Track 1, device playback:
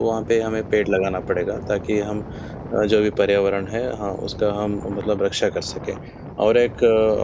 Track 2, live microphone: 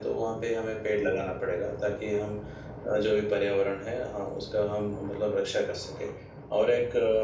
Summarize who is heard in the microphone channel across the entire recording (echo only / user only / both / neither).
echo only